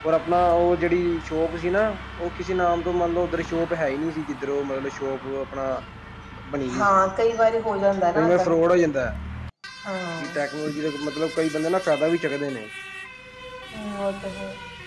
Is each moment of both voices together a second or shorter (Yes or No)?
Yes